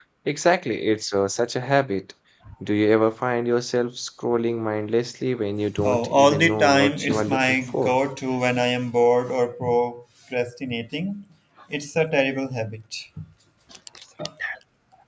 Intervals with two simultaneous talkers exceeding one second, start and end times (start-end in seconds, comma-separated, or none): 5.8-8.0